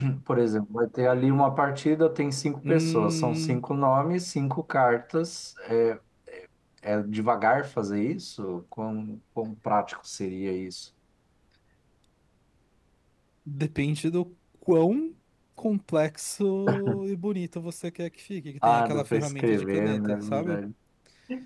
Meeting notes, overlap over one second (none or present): present